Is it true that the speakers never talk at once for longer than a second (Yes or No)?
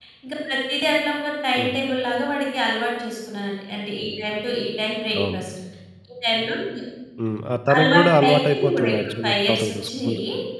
No